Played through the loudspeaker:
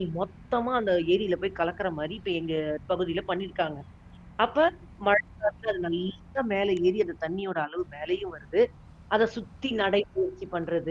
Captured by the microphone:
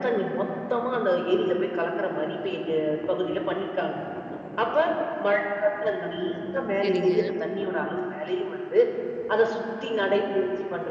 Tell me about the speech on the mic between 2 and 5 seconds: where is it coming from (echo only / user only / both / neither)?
echo only